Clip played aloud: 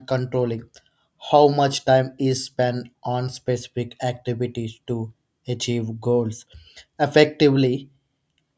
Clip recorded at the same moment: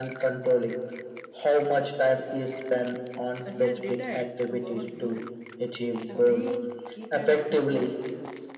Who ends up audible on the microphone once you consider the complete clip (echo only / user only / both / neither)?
both